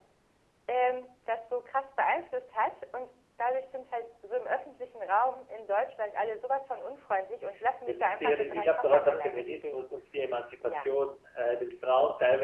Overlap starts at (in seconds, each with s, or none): 7.9 s